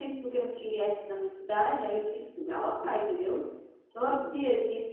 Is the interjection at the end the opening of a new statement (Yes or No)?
No